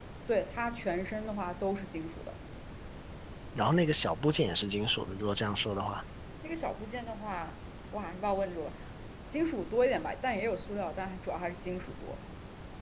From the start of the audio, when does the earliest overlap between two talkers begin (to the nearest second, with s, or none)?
none